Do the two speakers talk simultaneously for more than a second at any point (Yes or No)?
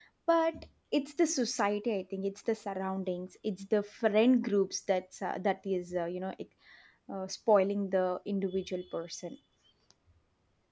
No